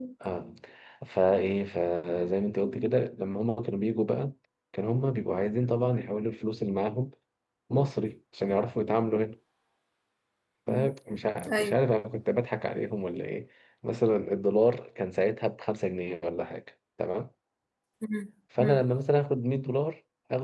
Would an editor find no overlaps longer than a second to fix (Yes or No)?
Yes